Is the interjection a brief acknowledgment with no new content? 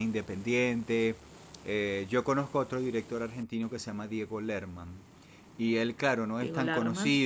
Yes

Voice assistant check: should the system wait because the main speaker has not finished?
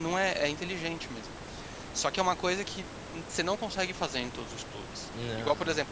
Yes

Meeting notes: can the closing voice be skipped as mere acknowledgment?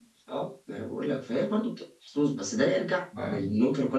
Yes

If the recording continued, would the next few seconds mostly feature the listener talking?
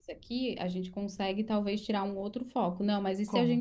No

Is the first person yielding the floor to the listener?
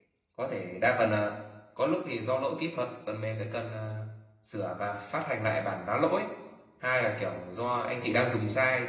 No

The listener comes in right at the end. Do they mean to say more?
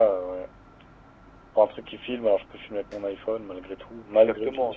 Yes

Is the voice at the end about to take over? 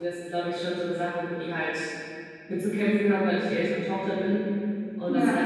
No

